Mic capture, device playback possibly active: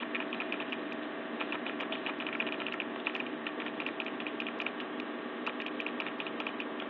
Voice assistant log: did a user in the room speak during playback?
No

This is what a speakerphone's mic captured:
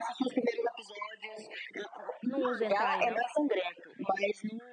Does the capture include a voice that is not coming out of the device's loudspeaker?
Yes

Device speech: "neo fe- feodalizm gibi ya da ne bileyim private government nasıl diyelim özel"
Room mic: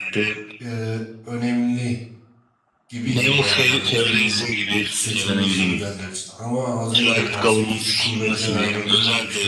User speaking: Yes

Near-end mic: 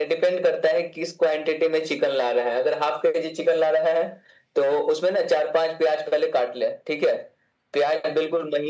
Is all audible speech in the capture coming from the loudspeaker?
Yes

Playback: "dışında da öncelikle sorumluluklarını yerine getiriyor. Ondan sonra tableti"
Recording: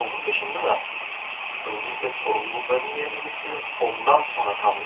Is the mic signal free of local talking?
Yes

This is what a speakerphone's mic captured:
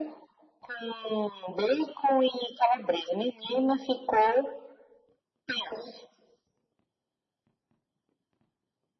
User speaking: No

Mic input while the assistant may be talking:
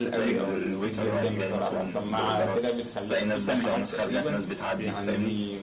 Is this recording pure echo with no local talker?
No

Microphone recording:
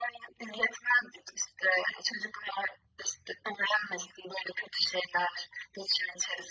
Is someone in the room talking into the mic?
No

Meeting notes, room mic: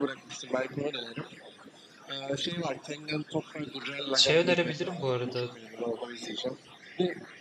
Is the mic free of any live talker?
No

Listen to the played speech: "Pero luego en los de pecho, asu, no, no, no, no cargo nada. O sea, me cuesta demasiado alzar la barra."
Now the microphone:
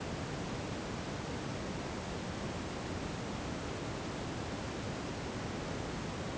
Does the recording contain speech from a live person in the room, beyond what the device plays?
No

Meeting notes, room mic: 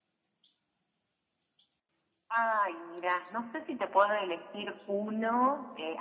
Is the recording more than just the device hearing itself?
No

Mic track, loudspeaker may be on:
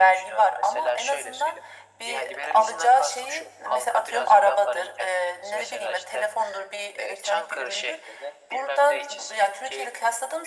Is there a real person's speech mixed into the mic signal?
No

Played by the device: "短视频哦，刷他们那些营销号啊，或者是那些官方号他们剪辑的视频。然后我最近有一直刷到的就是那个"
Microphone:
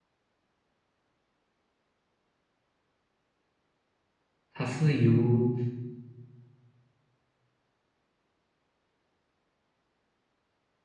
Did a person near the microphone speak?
Yes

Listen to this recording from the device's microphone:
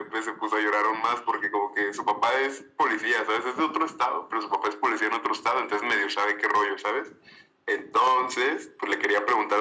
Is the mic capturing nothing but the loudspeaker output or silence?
Yes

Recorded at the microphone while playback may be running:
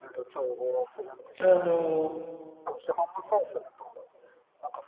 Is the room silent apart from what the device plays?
No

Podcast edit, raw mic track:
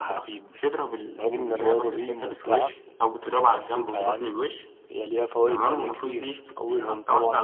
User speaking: Yes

